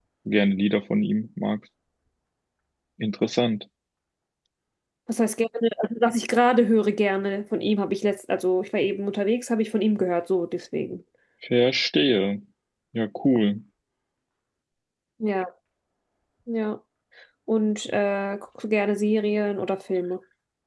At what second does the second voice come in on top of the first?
none

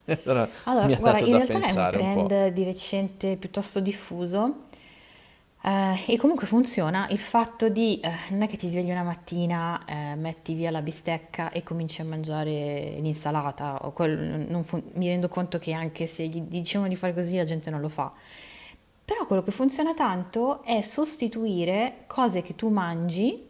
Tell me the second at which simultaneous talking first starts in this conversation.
0.8 s

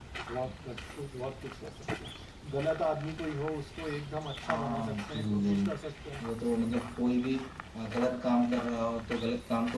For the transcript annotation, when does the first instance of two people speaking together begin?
4.4 s

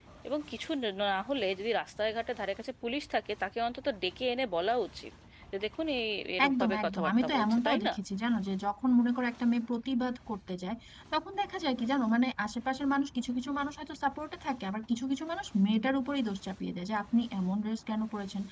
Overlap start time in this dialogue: 6.4 s

